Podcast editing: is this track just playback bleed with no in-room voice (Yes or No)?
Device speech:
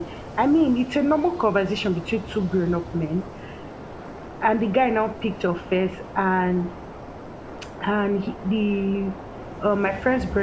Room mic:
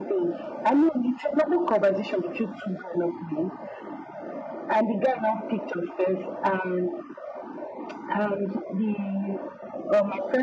Yes